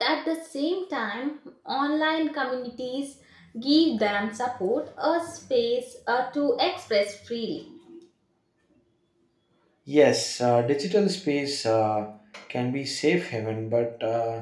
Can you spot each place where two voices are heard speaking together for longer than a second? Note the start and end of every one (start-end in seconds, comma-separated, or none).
none